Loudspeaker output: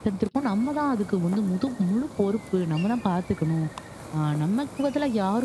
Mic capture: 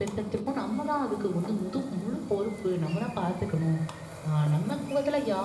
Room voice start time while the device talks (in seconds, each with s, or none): none